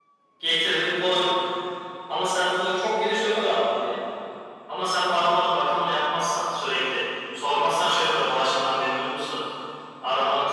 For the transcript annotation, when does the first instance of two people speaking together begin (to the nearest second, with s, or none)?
none